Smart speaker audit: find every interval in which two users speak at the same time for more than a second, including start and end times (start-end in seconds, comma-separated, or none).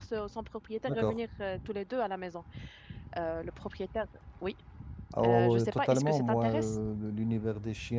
5.2-6.8